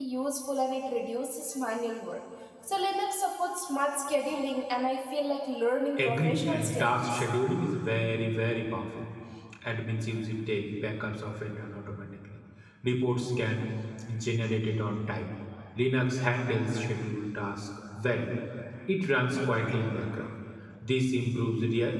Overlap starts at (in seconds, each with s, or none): 6.0 s